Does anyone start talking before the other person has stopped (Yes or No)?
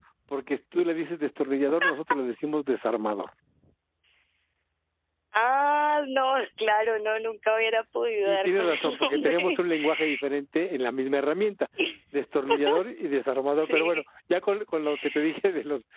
Yes